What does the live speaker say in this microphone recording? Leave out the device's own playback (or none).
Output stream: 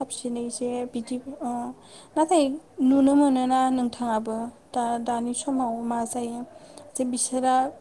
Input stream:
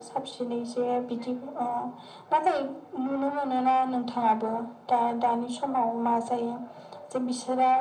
none